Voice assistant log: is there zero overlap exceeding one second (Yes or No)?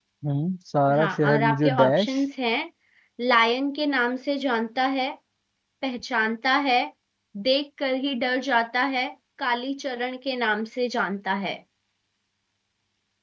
No